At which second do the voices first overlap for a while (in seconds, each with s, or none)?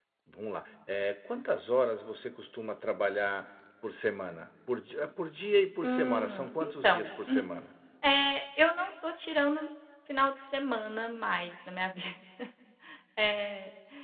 5.8 s